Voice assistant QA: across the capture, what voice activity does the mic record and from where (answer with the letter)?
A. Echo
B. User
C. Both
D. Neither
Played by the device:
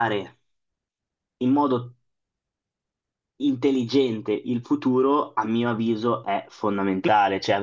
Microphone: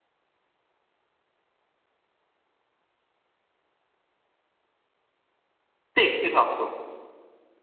B